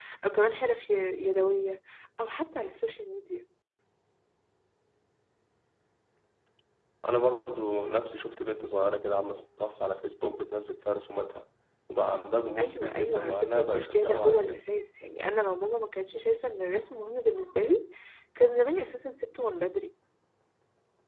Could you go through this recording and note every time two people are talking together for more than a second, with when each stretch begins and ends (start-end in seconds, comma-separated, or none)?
12.6-14.7